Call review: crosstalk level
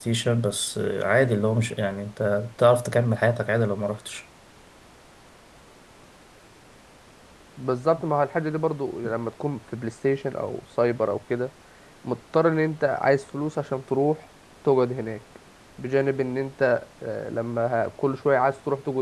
none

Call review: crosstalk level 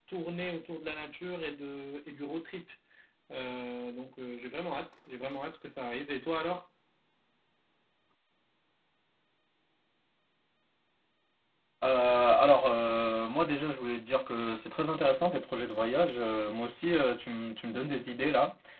none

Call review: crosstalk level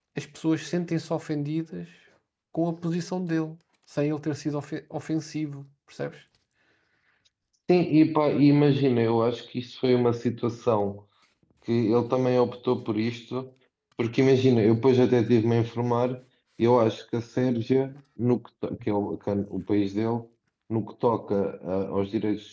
none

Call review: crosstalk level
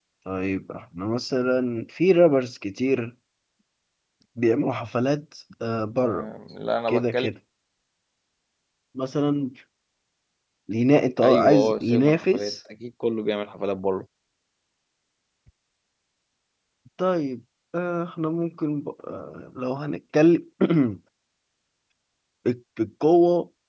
present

